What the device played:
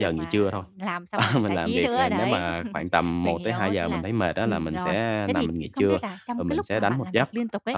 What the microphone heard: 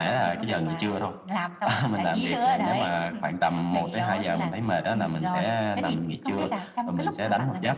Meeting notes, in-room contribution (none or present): none